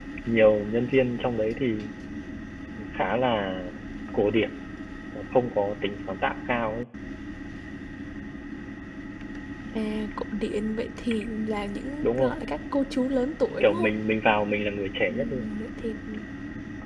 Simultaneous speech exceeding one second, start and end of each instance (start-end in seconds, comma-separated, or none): none